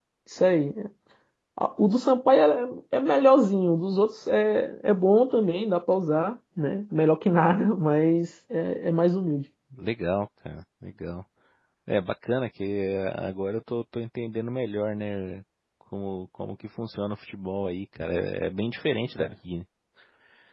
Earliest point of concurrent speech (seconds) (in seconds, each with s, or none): none